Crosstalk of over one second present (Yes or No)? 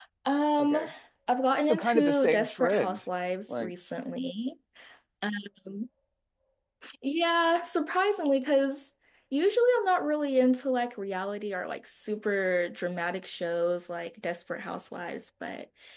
Yes